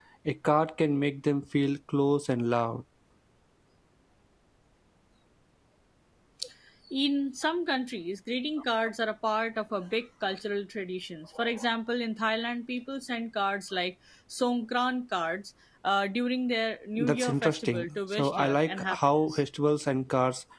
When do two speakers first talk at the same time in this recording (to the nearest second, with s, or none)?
17 s